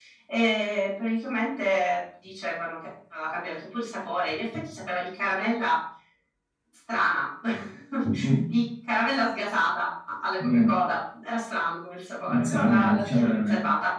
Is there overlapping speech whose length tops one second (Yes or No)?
Yes